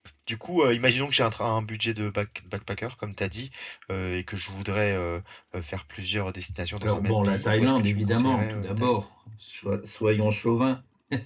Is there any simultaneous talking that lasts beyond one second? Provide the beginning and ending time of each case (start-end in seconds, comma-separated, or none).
6.8-8.9